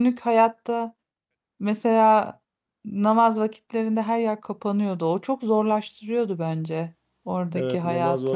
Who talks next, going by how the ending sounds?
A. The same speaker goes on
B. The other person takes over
B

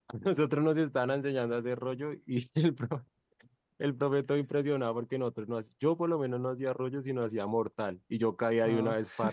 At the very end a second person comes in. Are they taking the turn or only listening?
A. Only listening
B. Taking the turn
A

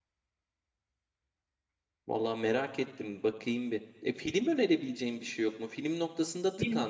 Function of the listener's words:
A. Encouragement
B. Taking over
A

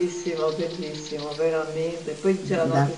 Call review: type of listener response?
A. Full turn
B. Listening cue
B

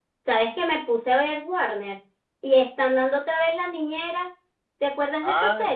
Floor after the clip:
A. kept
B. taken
B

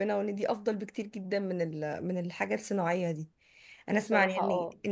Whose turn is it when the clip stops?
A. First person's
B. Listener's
A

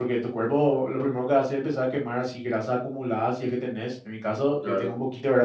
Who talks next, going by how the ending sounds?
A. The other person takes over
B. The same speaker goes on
B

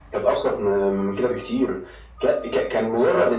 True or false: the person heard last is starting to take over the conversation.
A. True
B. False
B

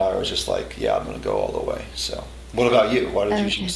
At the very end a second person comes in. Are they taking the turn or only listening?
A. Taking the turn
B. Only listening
A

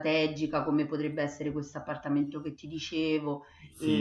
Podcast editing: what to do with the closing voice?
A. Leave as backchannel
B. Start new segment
B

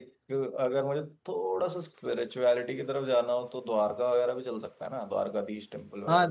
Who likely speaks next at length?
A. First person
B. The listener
B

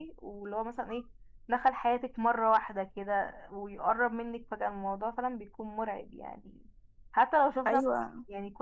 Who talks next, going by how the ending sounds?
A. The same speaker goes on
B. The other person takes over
A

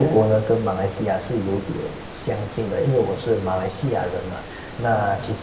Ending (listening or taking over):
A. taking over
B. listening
B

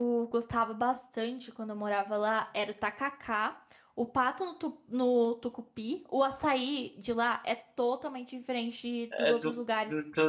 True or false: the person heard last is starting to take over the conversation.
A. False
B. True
B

